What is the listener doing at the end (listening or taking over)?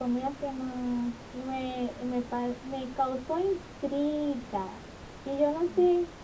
listening